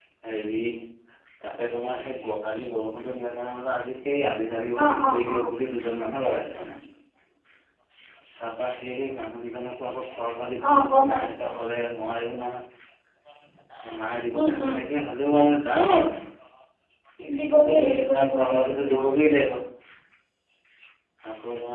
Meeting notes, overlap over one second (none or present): present